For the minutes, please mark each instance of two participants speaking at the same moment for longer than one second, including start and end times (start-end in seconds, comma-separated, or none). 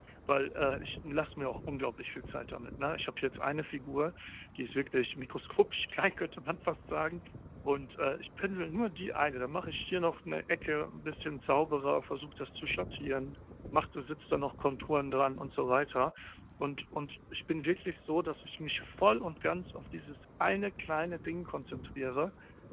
none